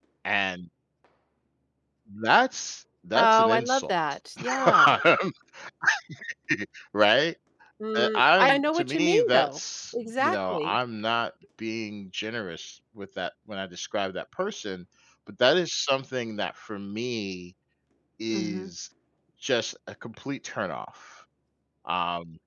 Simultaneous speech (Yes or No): Yes